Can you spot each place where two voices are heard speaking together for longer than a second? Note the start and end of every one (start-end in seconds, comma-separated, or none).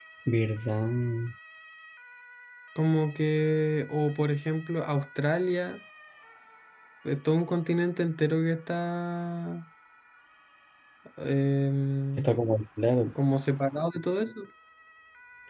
none